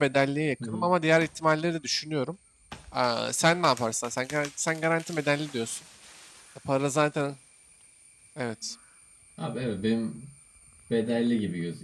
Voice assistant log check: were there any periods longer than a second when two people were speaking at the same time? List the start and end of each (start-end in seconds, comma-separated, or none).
none